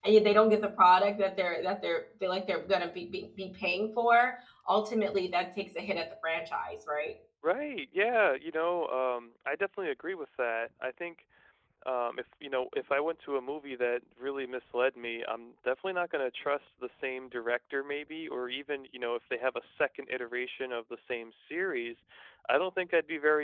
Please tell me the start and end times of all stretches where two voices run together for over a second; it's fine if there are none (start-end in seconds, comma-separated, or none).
none